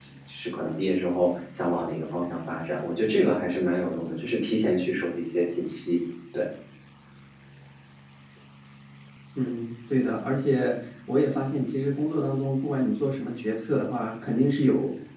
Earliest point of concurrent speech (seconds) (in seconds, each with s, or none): none